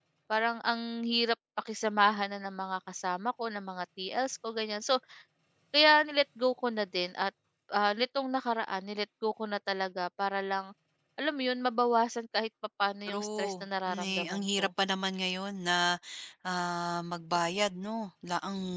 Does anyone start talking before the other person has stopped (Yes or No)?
Yes